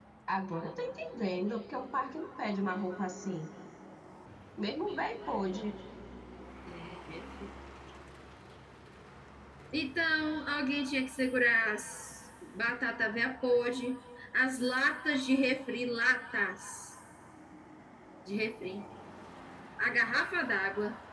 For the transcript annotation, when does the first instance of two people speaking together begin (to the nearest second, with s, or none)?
none